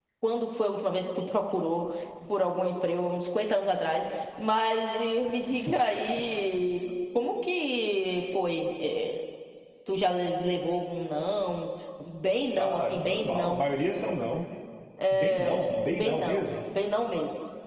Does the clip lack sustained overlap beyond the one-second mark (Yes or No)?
No